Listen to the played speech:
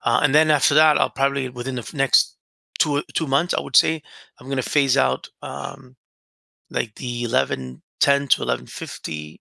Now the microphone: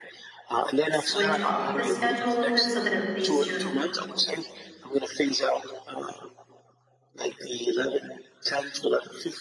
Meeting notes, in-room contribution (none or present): present